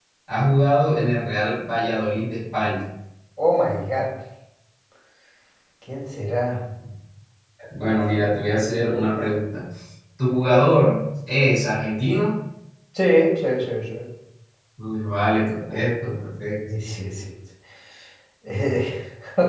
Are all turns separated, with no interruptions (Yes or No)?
Yes